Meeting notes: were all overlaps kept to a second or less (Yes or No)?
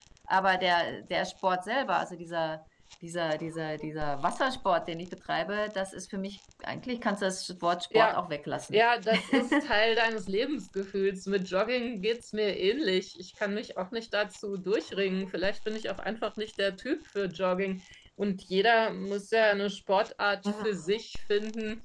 Yes